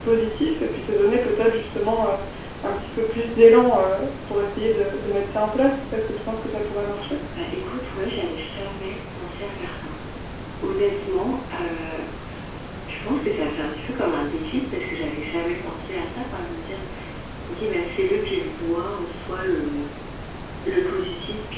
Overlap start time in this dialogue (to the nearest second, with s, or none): none